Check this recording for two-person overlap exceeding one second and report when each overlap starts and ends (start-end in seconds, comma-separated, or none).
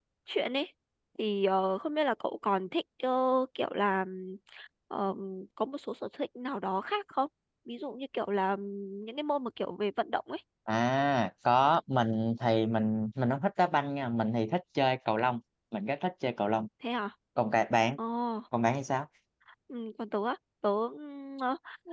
none